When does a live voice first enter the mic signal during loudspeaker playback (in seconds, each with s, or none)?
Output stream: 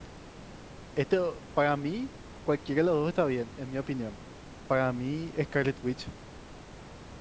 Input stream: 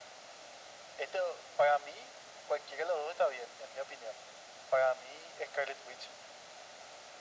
none